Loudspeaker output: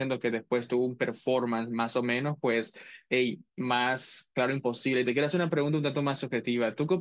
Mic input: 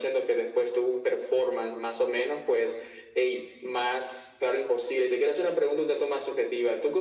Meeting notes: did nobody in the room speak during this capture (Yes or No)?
Yes